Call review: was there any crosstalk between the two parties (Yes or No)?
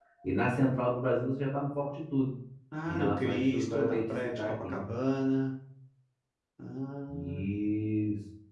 Yes